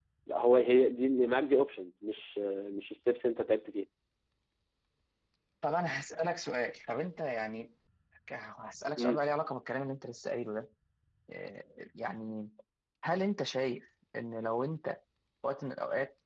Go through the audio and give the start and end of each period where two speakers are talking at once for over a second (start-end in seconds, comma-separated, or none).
none